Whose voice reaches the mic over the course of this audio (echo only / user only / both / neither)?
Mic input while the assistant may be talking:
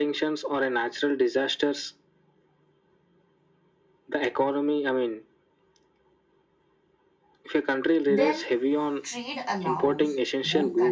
both